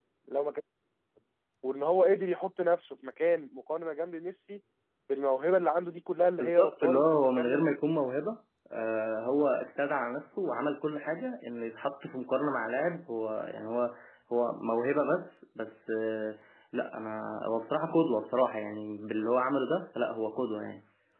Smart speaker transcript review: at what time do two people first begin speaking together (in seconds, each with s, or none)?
6.4 s